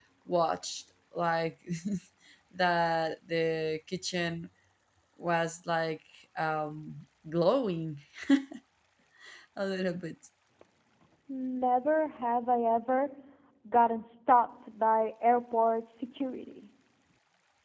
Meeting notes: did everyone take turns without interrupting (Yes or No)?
Yes